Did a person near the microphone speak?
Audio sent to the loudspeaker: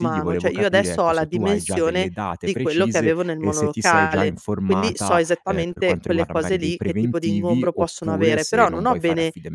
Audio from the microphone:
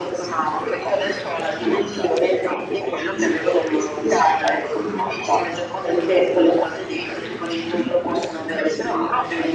No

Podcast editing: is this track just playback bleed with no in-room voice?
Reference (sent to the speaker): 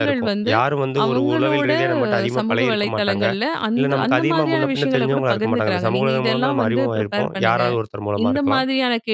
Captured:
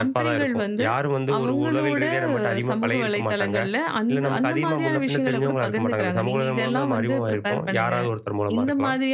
Yes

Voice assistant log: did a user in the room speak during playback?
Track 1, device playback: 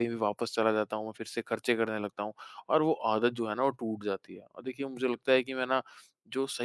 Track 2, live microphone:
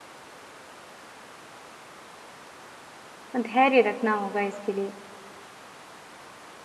Yes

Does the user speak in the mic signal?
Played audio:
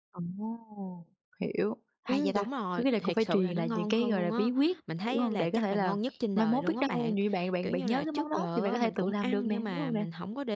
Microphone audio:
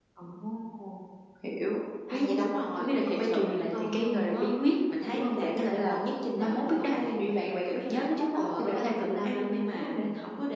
No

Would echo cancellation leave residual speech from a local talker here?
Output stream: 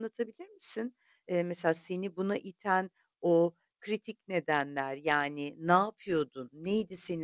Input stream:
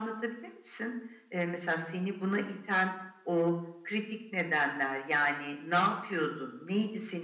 No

